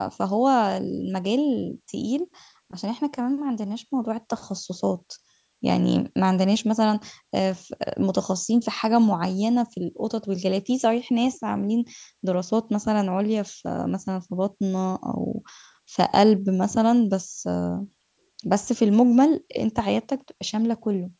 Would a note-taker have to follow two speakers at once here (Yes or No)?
No